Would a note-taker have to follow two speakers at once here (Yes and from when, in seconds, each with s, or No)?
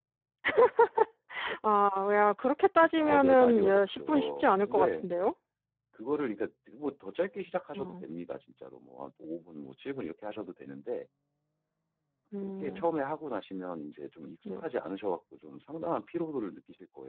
Yes, from 3.0 s